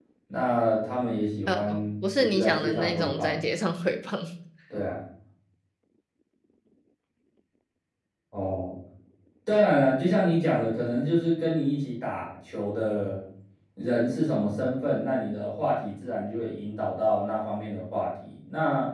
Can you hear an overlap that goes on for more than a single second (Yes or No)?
Yes